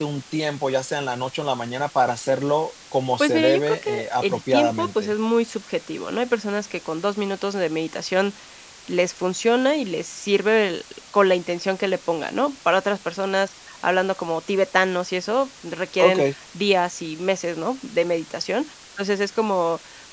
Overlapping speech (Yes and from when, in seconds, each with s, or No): Yes, from 3.2 s